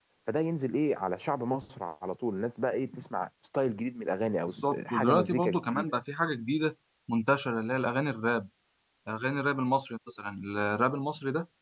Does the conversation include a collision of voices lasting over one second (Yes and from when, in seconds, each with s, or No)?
Yes, from 4.5 s